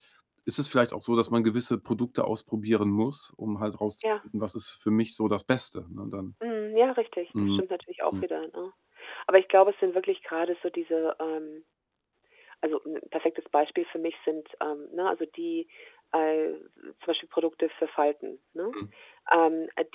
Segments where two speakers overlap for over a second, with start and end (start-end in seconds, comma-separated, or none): none